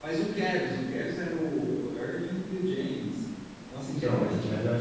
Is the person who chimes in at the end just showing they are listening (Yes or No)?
No